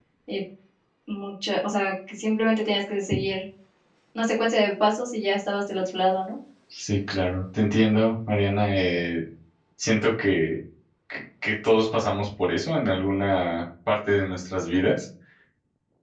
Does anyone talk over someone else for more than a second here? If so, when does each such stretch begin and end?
none

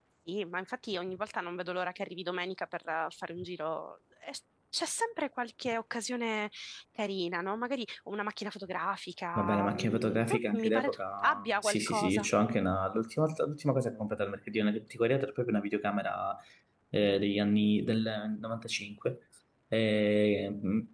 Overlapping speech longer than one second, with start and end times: 9.3-12.3

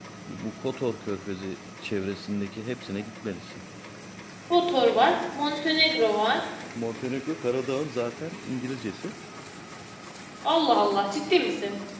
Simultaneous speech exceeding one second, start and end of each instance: none

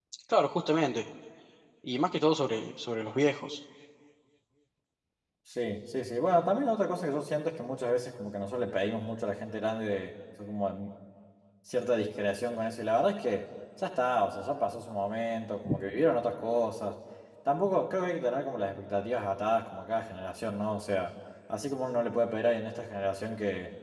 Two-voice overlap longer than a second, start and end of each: none

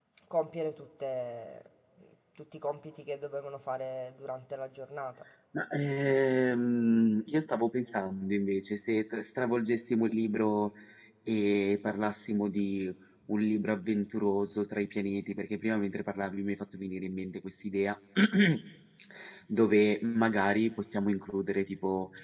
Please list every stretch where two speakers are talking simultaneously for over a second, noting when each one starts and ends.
none

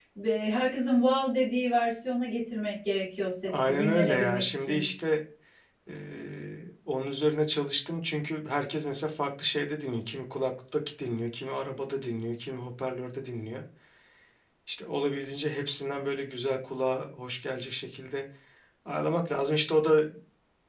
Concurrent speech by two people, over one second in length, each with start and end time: 3.5-4.8

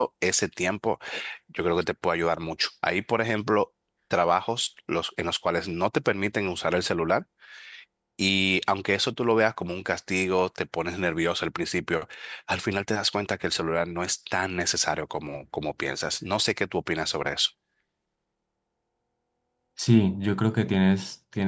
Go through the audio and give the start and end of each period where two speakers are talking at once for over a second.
none

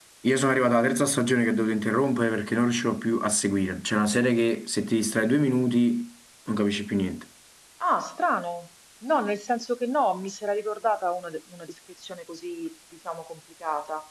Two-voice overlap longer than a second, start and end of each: none

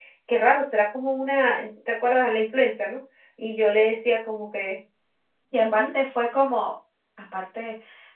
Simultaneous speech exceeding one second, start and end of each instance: none

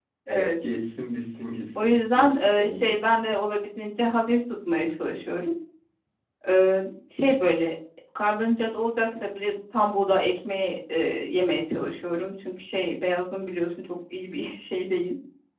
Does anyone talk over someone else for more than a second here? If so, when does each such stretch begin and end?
1.8-3.0

